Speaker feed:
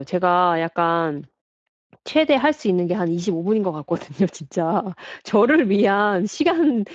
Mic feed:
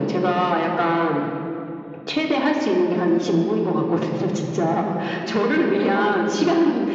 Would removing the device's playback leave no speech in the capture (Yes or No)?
No